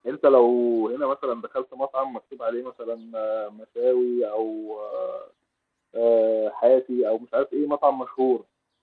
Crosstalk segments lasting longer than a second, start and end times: none

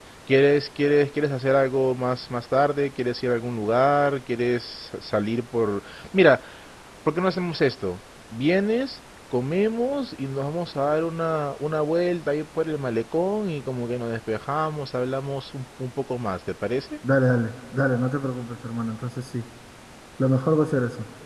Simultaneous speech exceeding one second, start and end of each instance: none

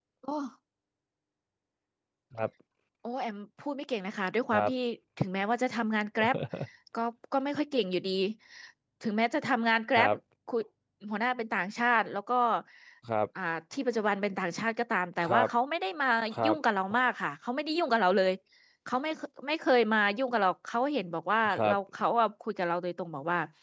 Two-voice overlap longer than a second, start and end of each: none

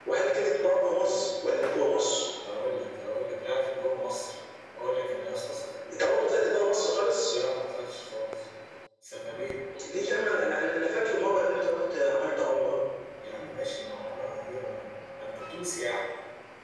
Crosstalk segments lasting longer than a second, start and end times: none

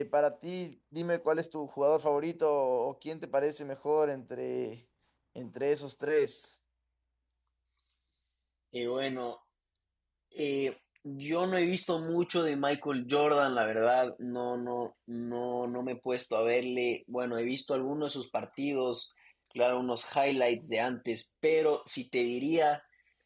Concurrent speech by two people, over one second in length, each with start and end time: none

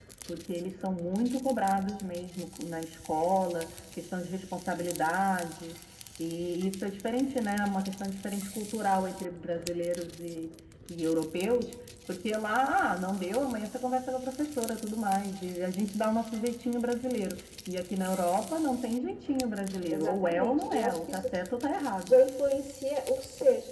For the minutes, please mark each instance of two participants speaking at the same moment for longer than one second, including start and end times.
19.9-21.3

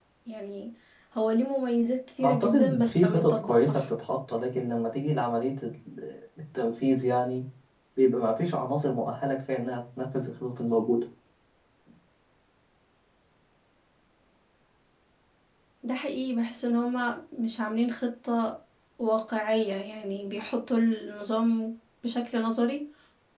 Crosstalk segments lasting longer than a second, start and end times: 2.2-3.9

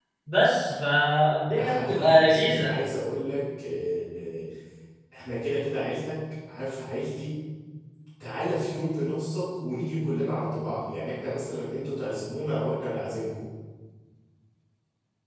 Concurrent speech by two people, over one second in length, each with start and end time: 1.5-2.7

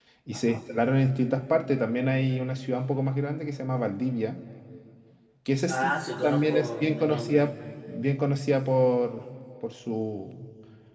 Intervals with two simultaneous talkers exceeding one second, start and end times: 5.7-7.4

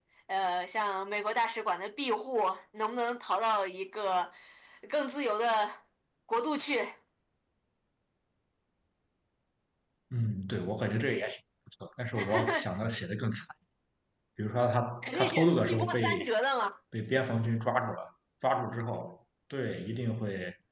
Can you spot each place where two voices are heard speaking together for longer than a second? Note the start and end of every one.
15.0-16.3

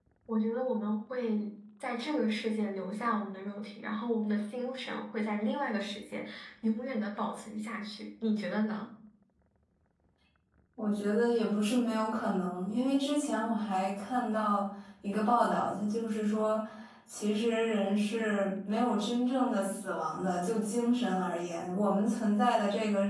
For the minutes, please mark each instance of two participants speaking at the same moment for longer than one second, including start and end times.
none

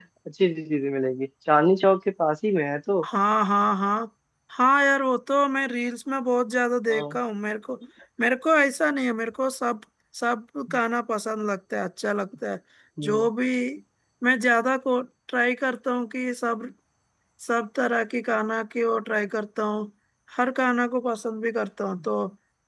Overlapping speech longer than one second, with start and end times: none

